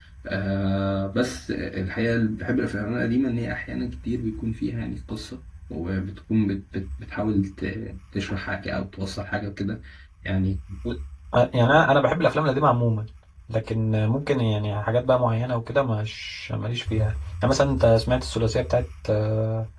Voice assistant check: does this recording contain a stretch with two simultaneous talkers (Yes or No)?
No